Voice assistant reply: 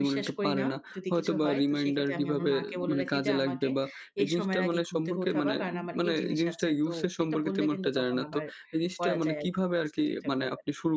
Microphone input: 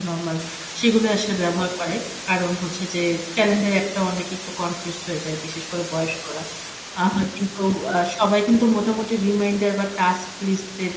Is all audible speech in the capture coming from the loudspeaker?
No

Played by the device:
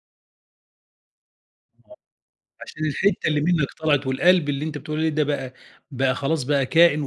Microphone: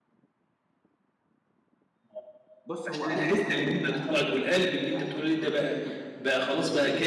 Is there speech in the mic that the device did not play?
Yes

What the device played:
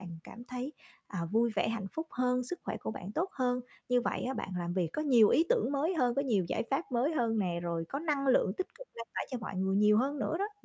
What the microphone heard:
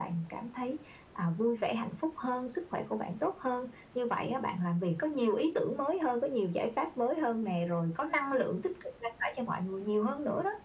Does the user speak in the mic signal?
No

